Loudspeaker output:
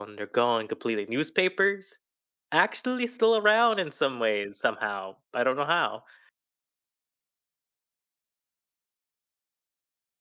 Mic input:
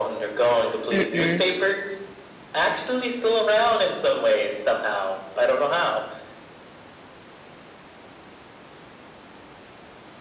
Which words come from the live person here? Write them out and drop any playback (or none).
Mm-mm.